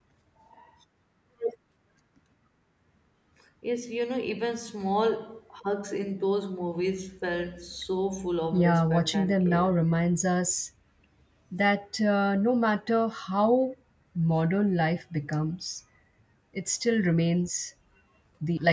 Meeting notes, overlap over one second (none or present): present